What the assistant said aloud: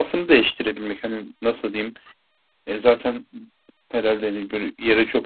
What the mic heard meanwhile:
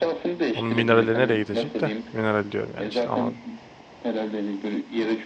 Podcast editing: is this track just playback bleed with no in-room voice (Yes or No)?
No